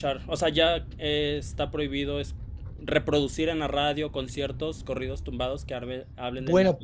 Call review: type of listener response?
taking over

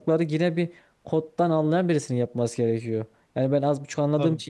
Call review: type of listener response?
listening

